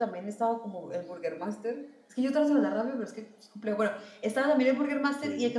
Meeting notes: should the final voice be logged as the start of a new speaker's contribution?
No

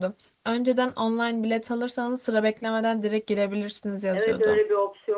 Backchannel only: No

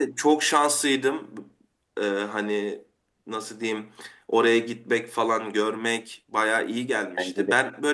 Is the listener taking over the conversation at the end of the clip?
No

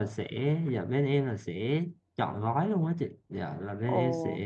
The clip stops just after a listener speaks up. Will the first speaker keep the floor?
Yes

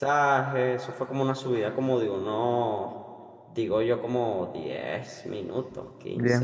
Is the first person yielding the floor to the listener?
Yes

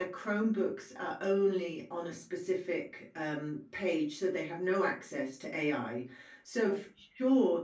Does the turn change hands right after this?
No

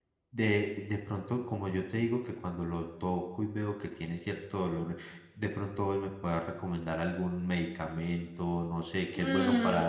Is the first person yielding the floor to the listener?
Yes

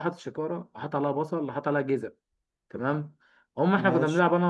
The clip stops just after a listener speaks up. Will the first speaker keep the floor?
Yes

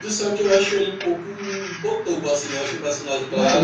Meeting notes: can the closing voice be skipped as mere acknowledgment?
No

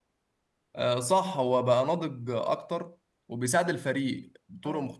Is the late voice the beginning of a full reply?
No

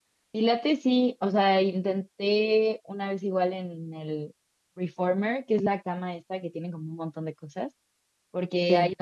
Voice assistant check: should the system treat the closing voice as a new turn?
No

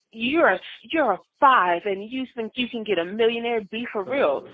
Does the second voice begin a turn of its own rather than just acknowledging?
No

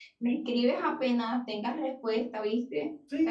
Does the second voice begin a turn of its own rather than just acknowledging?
Yes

